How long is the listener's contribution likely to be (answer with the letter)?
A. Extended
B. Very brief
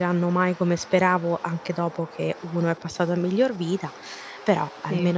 A